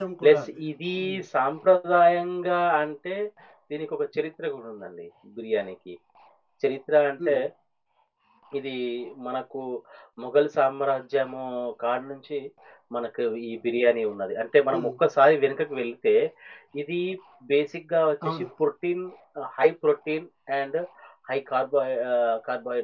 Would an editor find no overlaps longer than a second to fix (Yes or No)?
Yes